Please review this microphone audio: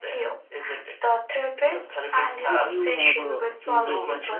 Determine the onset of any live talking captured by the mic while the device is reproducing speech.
2.4 s

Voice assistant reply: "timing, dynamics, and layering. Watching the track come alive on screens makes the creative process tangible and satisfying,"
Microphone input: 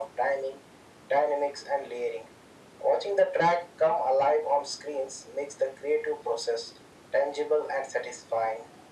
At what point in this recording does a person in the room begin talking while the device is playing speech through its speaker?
none

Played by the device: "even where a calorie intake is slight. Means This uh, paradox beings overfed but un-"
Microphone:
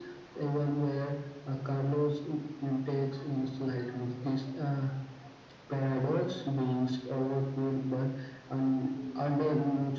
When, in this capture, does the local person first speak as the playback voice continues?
none

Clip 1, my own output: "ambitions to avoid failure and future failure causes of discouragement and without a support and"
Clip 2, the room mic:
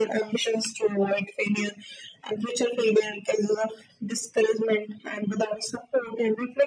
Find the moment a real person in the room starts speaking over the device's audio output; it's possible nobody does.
none

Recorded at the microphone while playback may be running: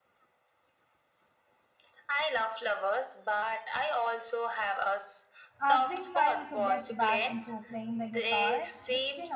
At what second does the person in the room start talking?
5.6 s

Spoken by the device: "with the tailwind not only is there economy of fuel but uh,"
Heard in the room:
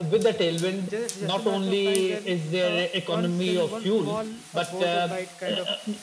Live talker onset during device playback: 0.8 s

